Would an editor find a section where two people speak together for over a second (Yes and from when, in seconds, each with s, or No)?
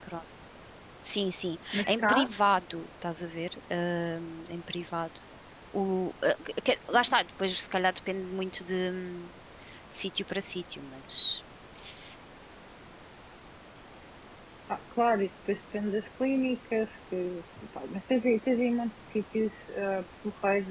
No